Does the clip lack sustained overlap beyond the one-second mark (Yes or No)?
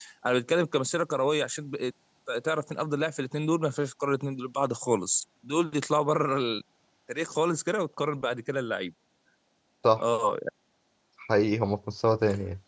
Yes